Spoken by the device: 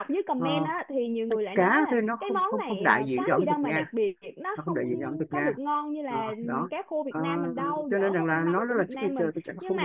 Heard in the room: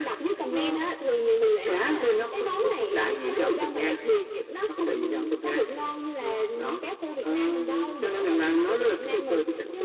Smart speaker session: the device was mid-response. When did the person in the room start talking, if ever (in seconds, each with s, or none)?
none